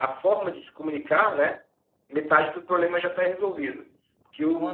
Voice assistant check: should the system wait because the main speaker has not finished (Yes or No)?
Yes